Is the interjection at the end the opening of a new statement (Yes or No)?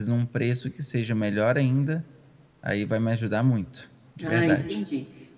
Yes